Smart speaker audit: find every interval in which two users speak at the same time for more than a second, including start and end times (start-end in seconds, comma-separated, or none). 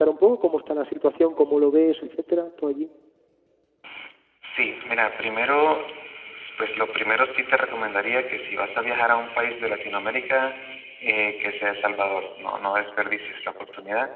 none